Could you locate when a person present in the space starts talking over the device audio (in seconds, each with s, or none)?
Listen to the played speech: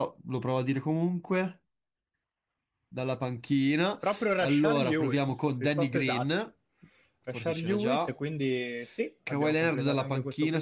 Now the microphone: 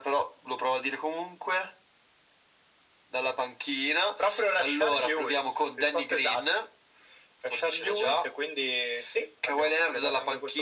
none